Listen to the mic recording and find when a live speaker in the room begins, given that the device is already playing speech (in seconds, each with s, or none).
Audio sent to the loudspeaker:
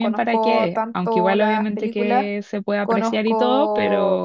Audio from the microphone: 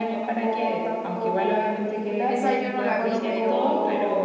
2.3 s